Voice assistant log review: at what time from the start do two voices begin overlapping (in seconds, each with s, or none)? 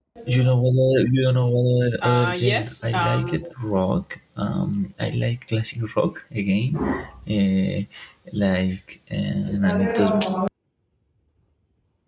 2.0 s